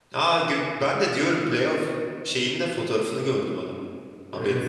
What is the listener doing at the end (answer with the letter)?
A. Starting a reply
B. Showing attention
A